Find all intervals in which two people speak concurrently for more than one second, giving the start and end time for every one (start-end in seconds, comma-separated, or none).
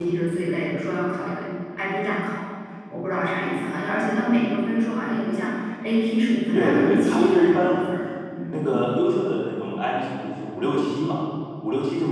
6.5-7.8